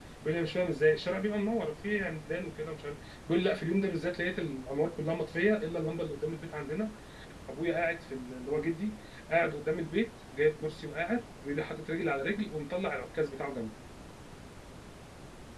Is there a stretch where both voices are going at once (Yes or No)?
No